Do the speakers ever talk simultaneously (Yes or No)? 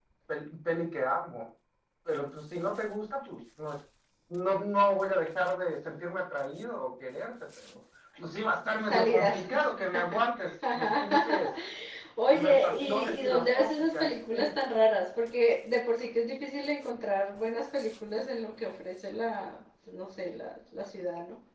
Yes